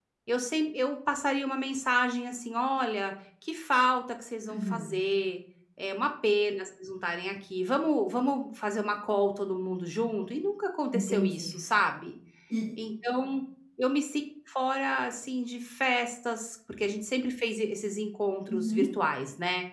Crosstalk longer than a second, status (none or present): none